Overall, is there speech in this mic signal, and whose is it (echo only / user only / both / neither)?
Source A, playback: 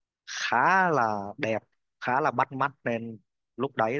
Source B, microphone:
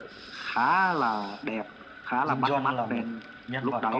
both